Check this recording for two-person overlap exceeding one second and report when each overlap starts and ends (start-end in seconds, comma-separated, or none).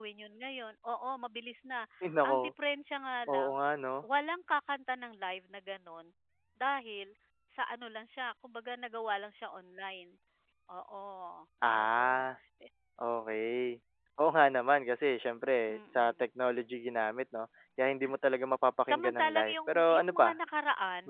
18.9-20.3